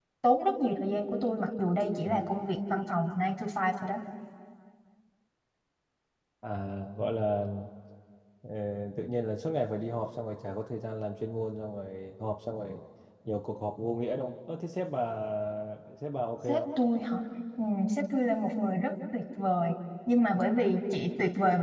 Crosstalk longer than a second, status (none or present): none